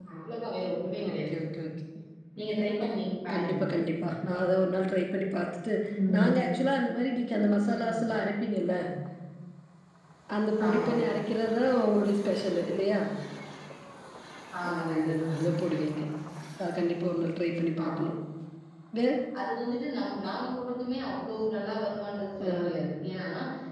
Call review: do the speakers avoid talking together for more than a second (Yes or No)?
No